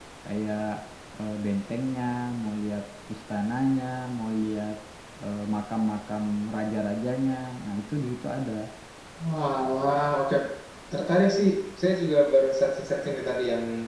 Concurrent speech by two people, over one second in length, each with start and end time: none

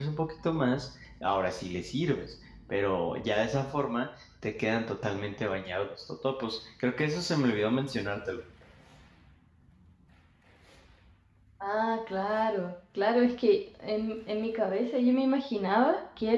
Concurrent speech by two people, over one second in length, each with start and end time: none

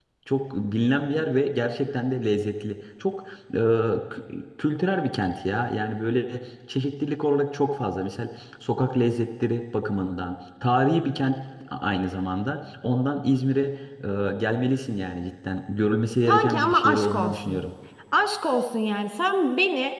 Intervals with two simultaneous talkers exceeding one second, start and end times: 16.2-17.6

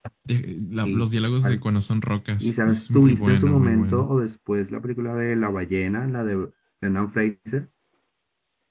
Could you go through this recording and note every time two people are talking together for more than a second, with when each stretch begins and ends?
2.4-4.1

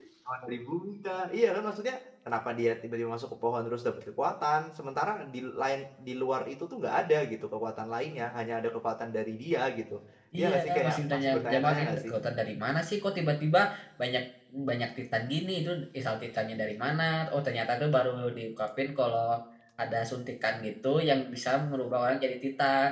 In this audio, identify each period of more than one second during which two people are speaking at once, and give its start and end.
10.4-12.1

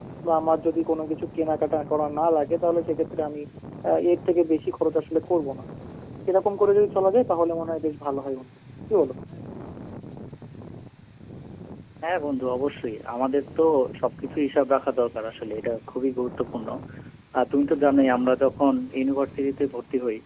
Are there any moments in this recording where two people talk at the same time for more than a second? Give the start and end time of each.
none

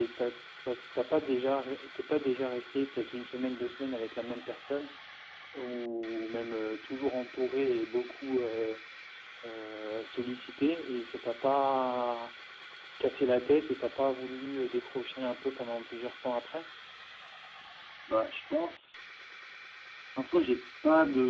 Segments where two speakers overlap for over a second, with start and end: none

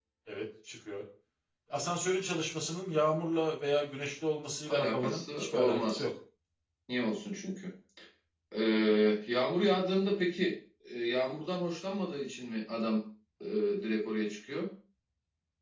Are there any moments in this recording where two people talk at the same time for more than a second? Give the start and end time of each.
4.7-6.0

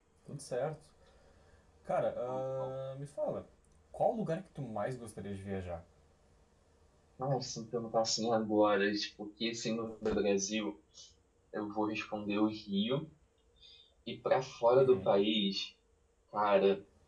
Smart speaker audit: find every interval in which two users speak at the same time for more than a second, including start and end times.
none

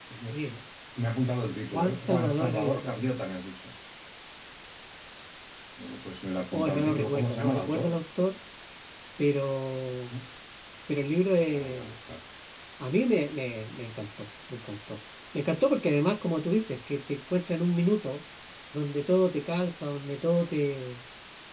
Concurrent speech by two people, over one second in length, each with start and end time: 1.7-3.0, 6.5-8.0

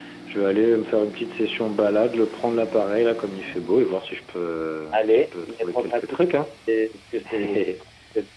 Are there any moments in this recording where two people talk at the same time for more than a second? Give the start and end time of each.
4.9-6.3

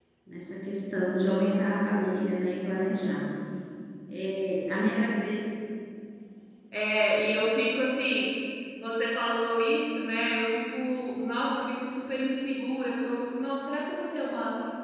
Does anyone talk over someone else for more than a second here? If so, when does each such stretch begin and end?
none

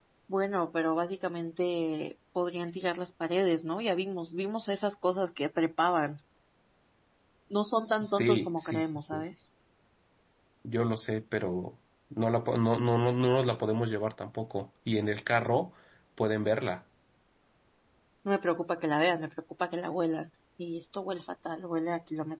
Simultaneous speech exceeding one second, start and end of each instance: 7.8-9.2

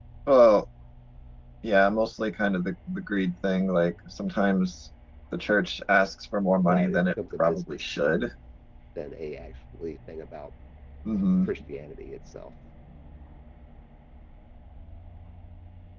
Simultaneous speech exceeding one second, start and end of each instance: 6.7-7.9

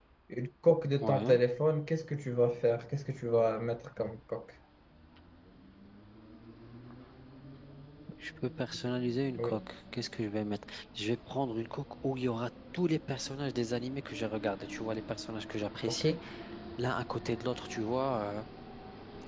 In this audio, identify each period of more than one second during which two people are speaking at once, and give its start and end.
none

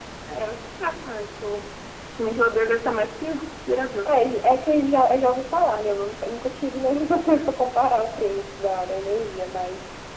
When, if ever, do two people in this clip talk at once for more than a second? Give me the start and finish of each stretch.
none

